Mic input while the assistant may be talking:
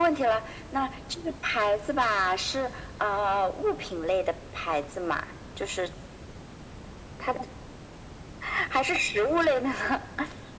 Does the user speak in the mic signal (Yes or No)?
No